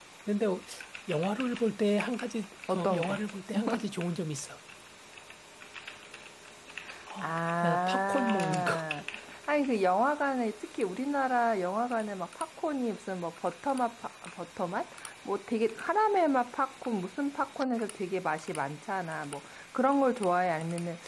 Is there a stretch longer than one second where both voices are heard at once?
Yes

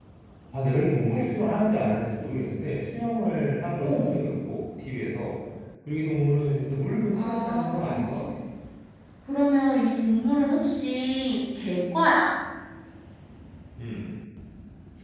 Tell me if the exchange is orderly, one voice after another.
No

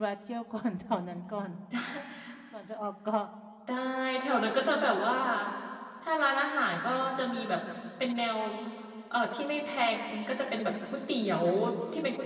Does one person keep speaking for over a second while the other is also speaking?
No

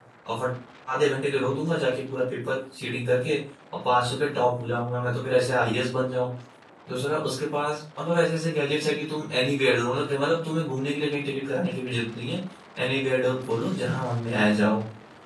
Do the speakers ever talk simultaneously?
No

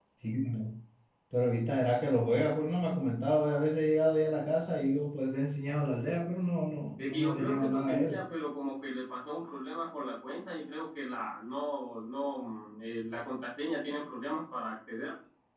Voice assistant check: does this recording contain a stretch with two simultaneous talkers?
Yes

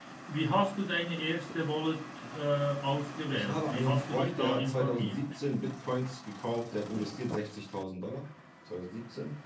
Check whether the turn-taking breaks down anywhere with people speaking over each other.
Yes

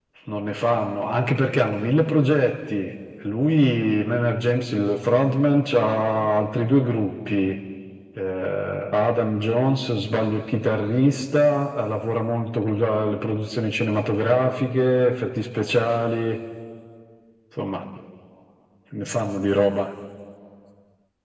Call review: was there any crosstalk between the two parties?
No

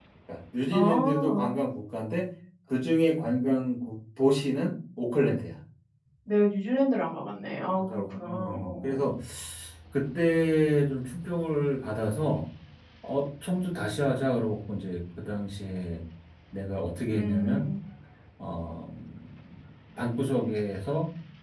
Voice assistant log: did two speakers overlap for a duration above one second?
Yes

